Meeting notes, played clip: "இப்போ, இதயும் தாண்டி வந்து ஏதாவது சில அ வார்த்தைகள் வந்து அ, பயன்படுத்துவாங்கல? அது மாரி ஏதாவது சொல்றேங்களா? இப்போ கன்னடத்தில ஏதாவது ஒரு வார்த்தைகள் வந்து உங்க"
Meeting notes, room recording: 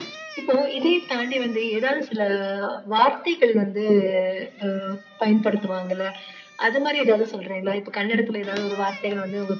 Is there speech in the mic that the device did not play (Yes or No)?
No